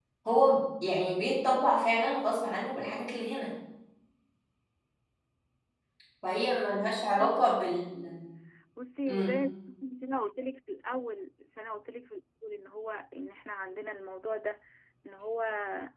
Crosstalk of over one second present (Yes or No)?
No